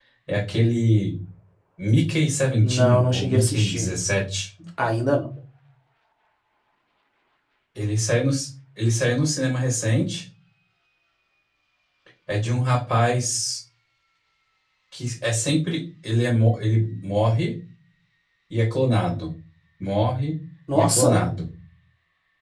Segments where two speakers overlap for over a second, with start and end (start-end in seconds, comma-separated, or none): 2.6-3.9